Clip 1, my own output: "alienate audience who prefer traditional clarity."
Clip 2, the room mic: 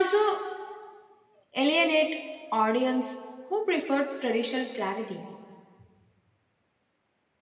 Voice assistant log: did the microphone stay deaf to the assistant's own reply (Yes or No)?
No